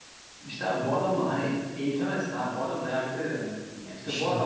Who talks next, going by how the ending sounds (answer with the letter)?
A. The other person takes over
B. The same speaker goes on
A